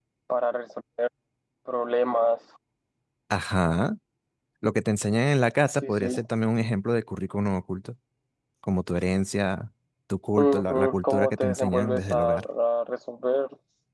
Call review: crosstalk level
present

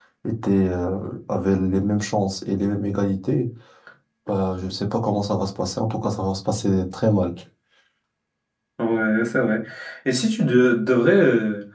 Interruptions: none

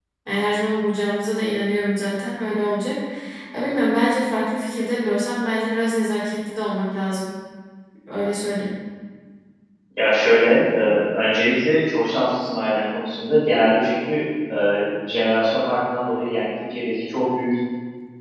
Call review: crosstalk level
none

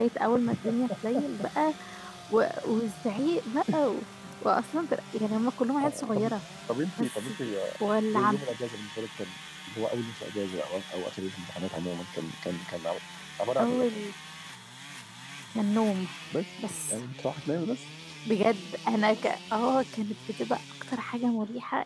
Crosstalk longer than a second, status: none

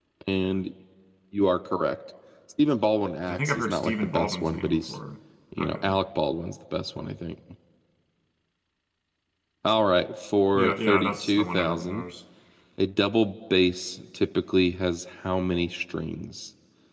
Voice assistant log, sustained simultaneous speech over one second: present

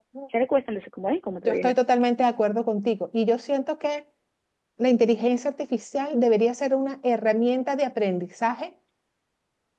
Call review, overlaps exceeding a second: none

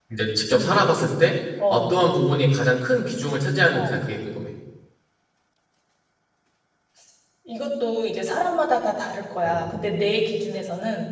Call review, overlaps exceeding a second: none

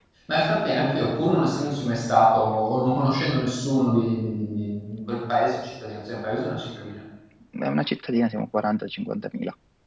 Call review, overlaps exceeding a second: none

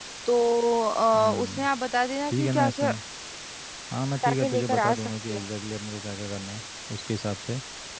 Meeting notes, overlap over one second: present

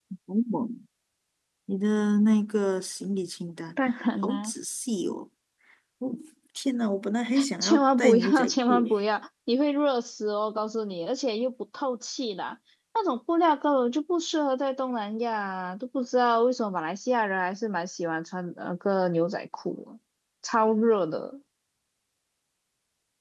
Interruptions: present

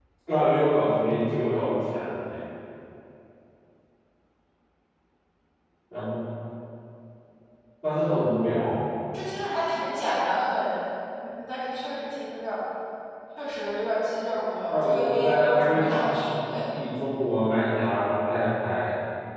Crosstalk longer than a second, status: present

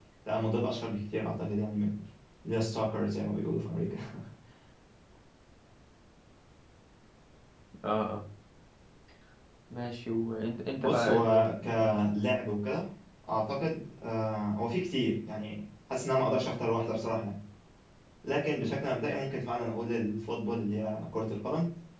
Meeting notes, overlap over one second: present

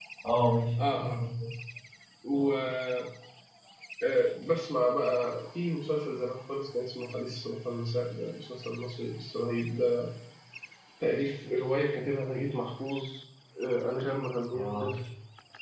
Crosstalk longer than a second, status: none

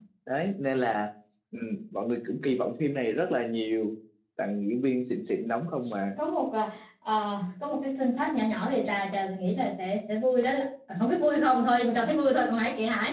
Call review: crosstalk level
none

